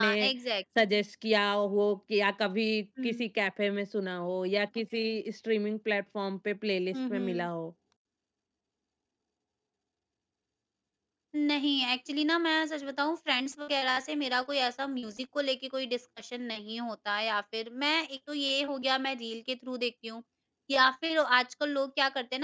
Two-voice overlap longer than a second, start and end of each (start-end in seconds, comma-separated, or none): none